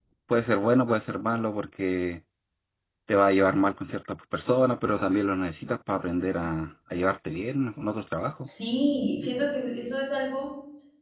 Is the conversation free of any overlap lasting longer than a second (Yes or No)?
Yes